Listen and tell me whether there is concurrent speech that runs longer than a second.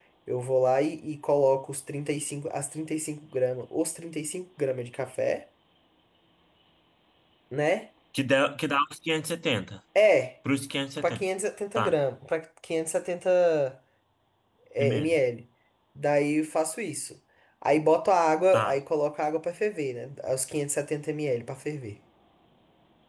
No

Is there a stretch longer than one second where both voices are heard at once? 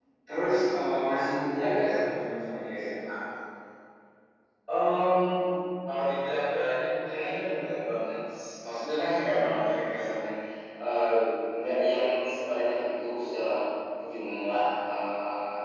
No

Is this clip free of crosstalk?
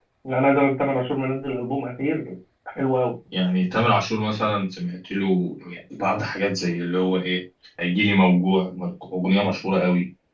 Yes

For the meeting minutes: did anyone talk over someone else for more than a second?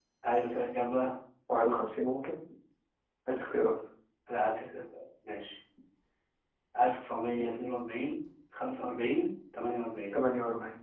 No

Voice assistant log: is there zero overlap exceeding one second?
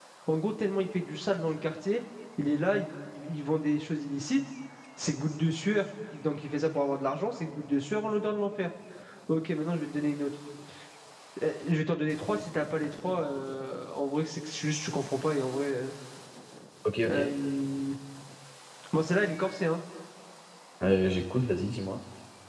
Yes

